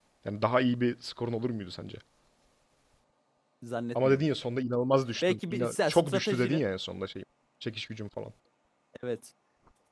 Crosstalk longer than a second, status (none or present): present